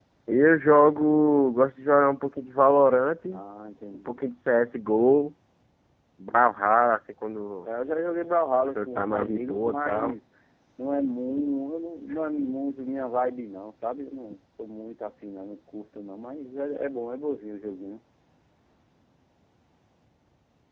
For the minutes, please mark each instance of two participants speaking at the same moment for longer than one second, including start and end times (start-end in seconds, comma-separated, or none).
8.6-10.2